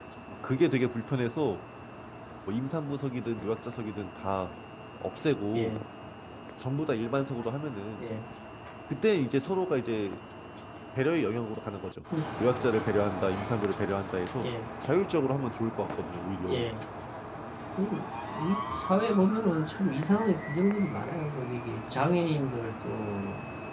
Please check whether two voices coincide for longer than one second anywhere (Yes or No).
No